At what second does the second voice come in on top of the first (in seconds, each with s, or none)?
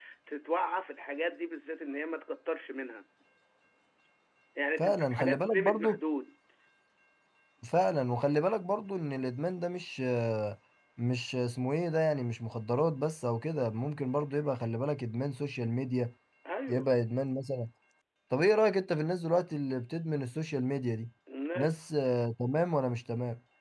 4.8 s